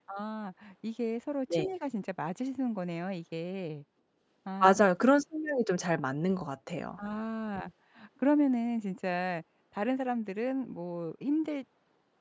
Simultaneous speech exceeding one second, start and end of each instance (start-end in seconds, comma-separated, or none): none